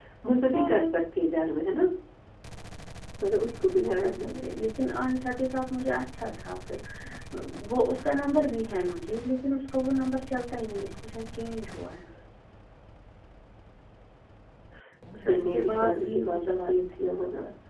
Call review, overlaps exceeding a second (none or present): present